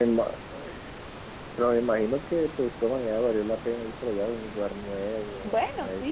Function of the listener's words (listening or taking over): taking over